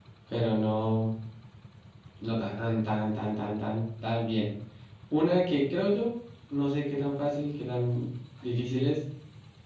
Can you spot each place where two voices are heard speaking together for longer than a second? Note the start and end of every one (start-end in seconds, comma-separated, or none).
none